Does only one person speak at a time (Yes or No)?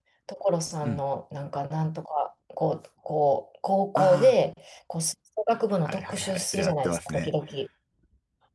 No